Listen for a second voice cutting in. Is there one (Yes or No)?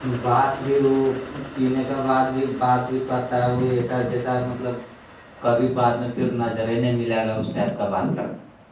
No